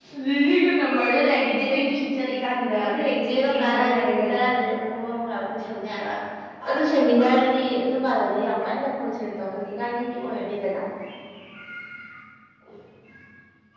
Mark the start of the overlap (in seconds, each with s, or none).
2.8 s